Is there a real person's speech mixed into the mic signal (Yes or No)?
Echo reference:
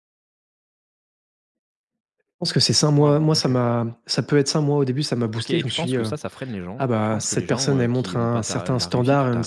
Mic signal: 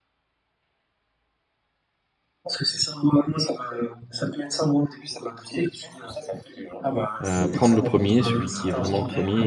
Yes